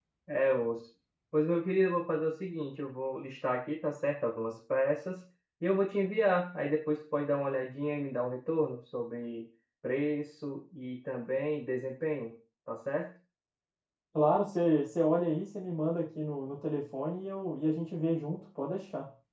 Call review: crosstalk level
none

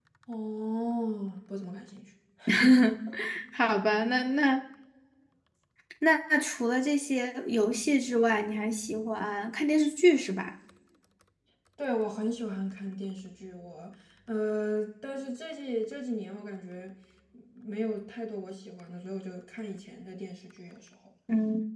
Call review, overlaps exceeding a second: none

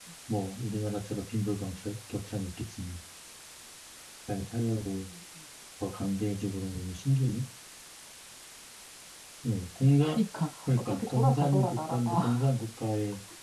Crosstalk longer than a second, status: present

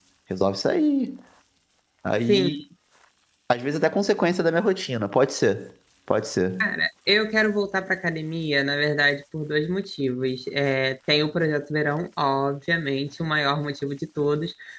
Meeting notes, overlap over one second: none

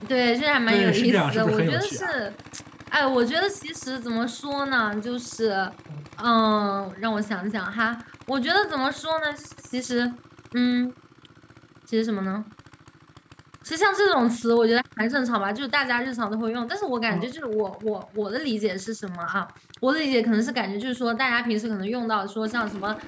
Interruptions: present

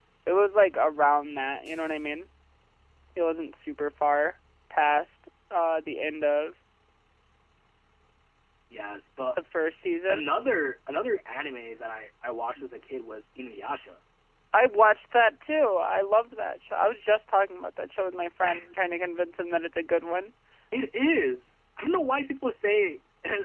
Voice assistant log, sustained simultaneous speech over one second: none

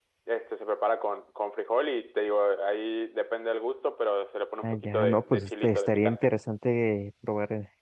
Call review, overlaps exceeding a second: present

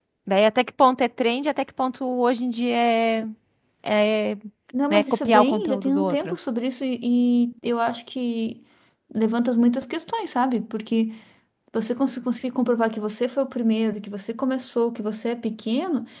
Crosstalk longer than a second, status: present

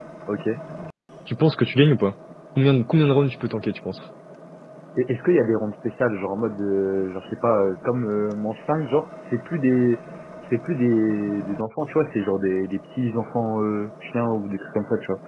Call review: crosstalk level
none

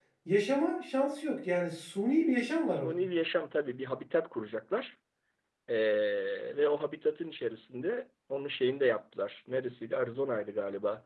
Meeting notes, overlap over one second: none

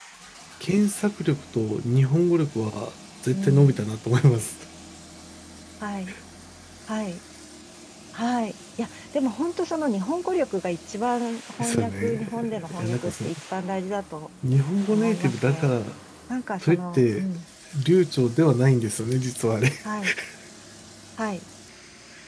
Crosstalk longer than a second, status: present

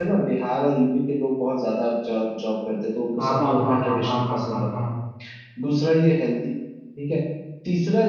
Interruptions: present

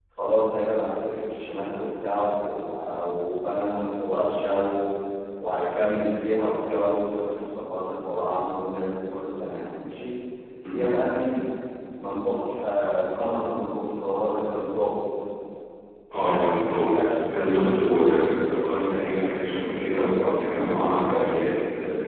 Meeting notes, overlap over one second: present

